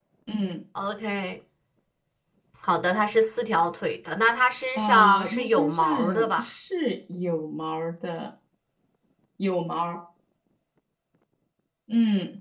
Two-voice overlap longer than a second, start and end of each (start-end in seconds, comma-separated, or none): 4.8-6.4